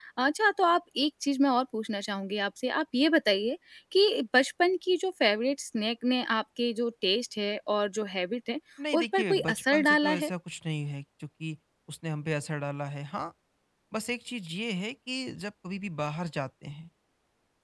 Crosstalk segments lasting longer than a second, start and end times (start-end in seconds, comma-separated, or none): 8.9-10.3